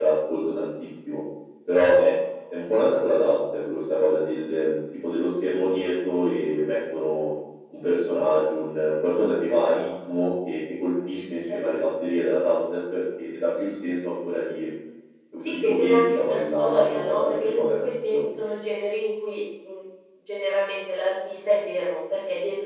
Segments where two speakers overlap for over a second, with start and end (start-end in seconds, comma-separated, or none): 15.4-18.2